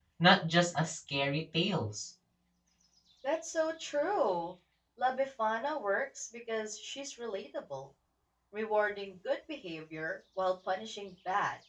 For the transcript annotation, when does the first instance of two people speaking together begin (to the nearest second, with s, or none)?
none